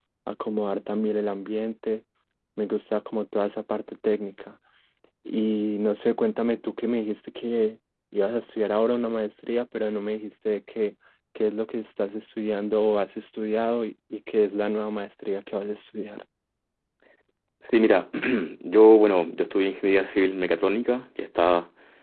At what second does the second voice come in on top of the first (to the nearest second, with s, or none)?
none